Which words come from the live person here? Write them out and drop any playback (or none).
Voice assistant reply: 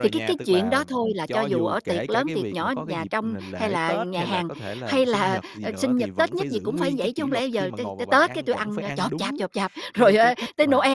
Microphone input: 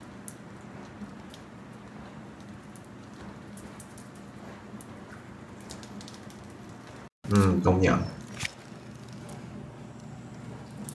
Ừm, công nhận.